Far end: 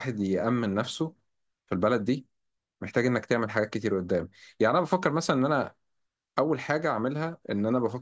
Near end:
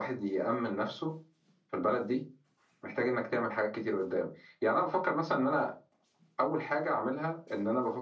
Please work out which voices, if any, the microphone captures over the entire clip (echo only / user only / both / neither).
echo only